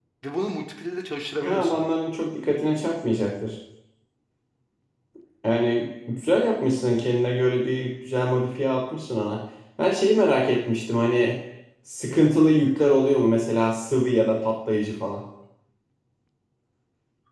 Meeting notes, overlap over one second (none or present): none